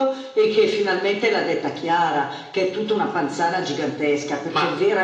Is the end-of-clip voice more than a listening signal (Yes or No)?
No